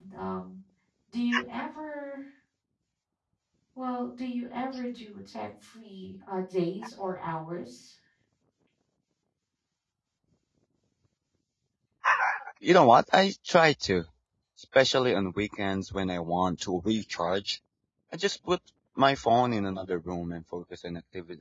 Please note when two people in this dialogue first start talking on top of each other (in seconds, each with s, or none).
none